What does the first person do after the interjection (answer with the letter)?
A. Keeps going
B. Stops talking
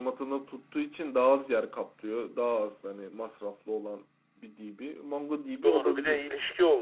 B